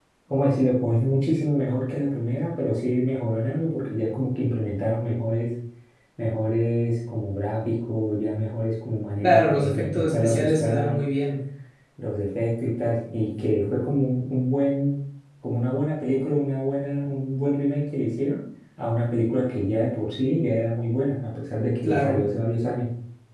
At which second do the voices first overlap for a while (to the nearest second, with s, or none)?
9 s